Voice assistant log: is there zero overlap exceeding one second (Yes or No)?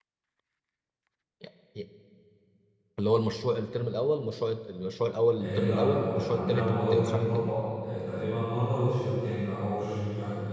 No